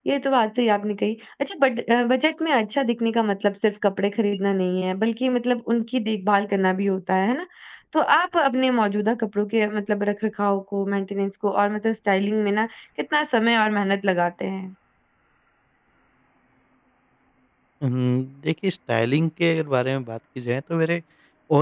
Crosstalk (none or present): none